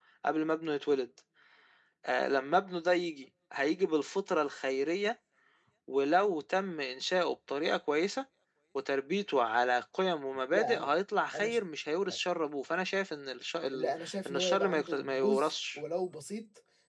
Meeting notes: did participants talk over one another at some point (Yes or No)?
Yes